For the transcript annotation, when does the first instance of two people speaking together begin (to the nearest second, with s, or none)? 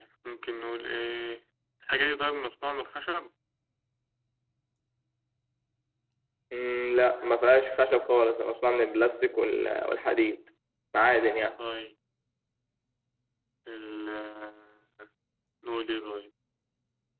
none